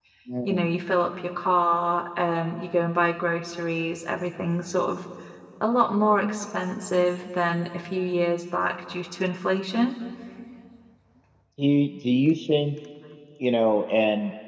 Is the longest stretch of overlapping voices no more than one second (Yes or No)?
Yes